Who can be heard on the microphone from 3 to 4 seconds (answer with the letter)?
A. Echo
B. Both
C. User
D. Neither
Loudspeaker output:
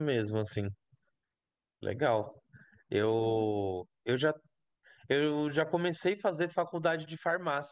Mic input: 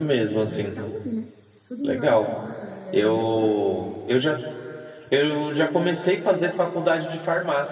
B